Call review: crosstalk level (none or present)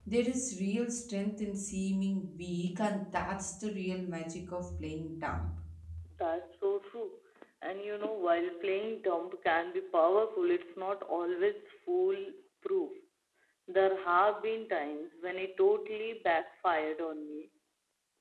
none